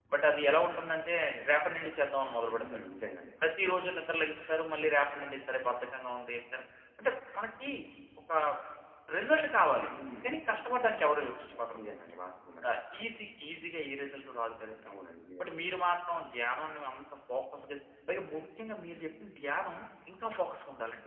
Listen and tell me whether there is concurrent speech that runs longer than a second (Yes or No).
No